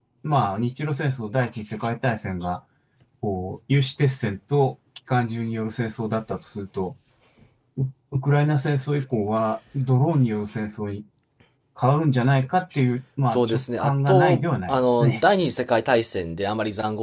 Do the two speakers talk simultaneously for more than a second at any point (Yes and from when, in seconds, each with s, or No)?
Yes, from 13.3 s